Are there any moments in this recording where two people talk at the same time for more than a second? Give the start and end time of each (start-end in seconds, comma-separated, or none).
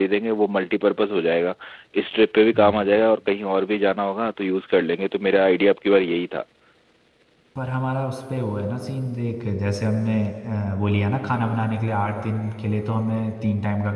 none